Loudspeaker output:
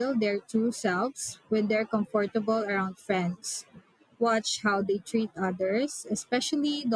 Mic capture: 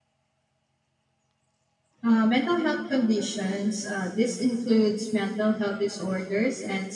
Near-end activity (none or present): present